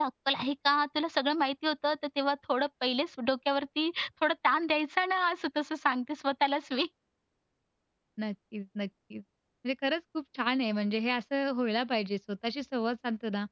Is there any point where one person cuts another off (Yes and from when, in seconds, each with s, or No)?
No